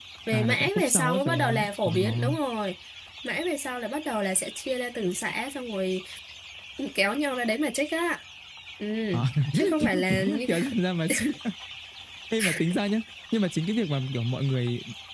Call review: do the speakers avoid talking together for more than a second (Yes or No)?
No